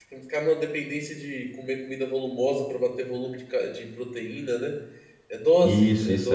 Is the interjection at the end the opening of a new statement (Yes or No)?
Yes